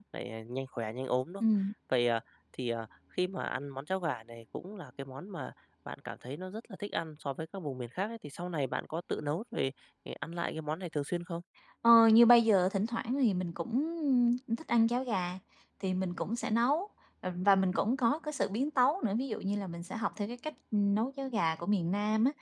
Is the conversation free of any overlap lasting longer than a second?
Yes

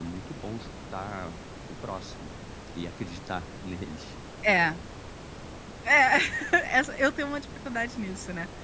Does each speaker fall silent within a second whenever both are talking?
Yes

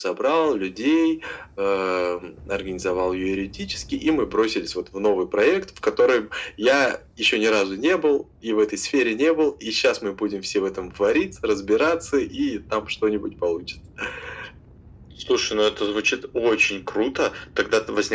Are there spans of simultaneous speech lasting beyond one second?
No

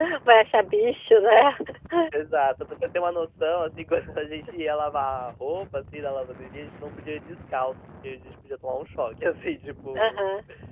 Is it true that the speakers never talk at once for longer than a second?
Yes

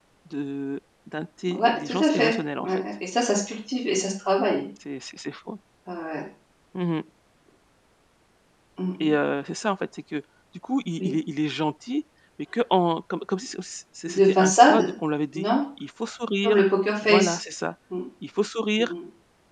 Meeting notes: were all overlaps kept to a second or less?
No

